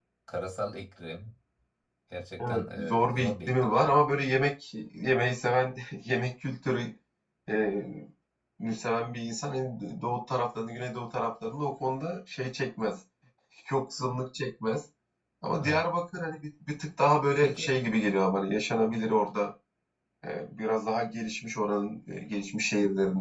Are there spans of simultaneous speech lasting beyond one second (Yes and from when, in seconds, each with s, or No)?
Yes, from 2.4 s